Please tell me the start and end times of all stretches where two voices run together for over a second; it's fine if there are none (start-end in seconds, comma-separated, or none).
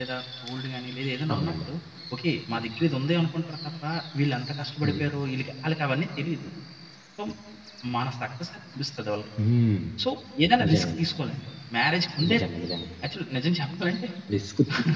none